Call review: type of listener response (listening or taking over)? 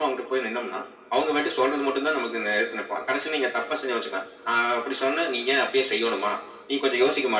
listening